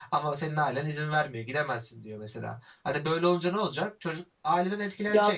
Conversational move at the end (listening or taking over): taking over